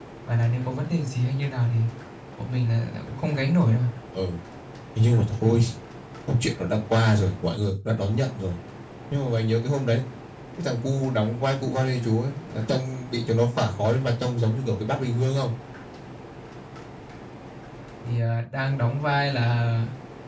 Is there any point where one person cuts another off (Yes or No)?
No